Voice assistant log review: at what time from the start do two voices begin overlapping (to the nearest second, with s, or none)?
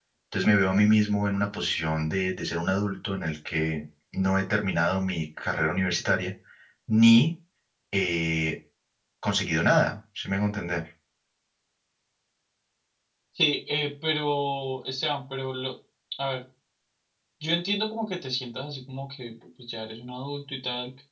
none